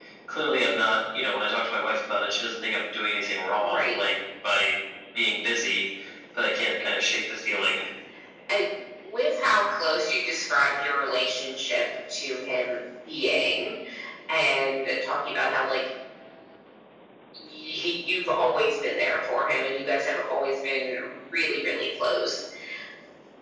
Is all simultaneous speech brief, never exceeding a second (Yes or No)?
Yes